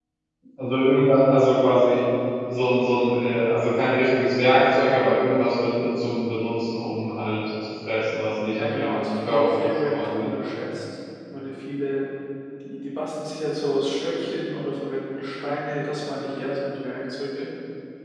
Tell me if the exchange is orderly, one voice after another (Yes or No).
No